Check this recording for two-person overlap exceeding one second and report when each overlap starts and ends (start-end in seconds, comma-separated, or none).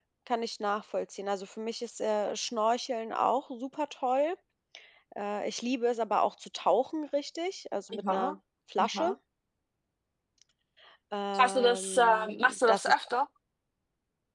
11.4-12.9